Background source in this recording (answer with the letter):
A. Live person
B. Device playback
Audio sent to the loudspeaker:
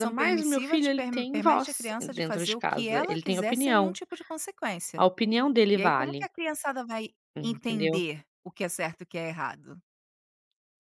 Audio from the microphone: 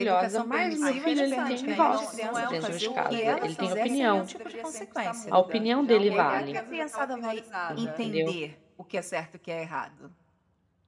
A